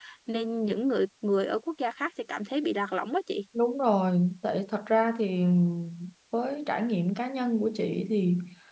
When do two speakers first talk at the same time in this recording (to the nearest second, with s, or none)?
none